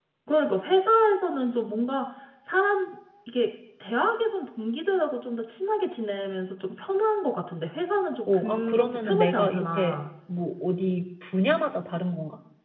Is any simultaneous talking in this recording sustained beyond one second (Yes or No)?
Yes